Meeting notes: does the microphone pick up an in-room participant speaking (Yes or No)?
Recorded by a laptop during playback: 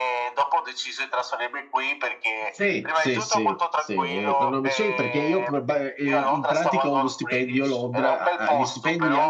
Yes